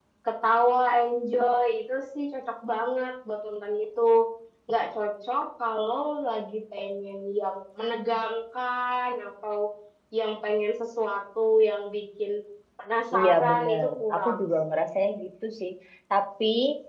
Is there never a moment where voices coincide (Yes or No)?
No